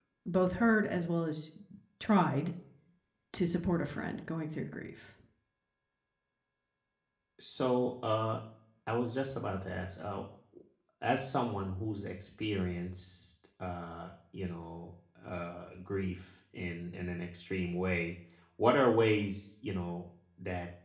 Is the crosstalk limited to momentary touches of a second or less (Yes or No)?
Yes